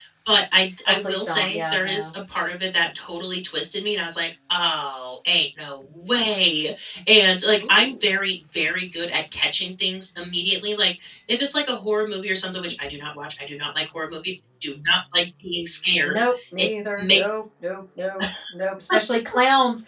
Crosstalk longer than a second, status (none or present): present